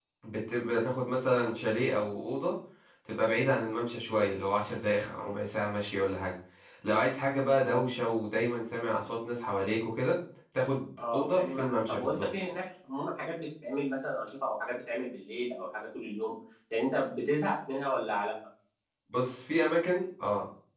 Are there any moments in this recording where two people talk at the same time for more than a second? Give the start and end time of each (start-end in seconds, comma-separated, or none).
11.0-12.2